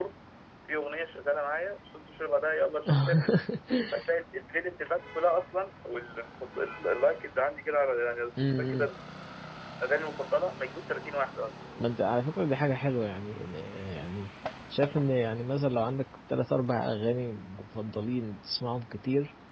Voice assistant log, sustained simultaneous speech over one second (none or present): none